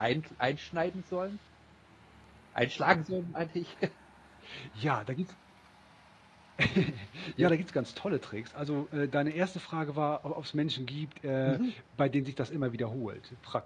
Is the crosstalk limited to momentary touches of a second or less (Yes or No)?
Yes